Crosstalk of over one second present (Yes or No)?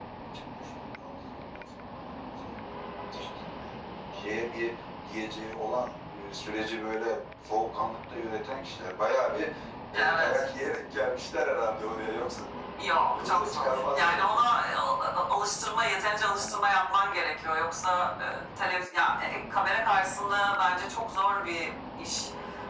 Yes